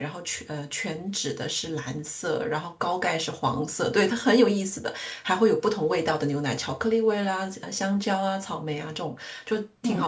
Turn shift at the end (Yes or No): No